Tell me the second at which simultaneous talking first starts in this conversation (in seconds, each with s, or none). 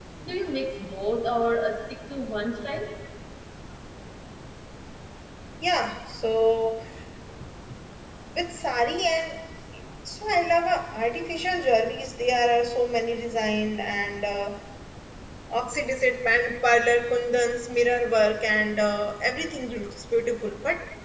none